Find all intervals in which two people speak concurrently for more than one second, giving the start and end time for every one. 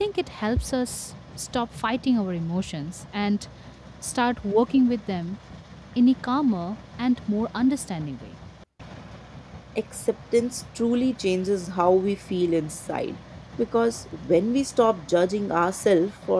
none

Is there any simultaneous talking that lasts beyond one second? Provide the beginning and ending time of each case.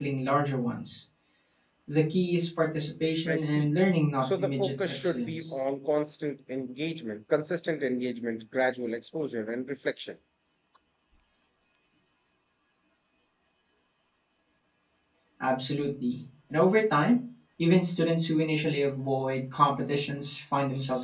4.2-5.5

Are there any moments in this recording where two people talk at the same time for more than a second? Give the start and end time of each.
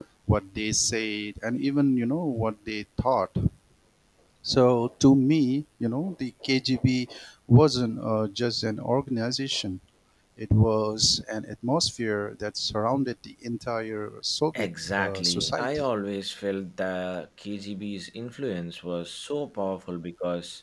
14.5-15.8

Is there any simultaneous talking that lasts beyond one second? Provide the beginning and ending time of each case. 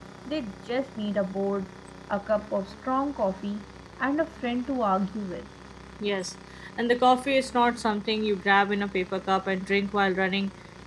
none

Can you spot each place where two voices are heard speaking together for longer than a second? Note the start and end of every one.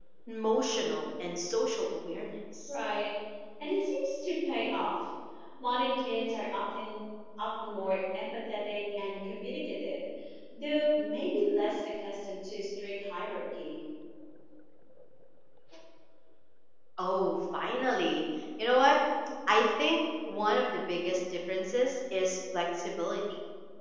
none

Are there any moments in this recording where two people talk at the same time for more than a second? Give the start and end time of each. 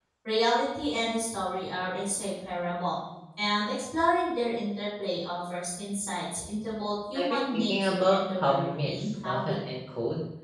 7.2-9.6

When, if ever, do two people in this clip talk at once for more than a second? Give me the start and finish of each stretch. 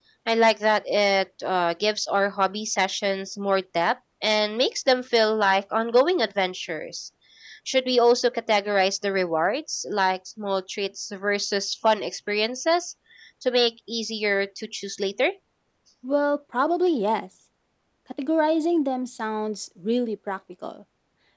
none

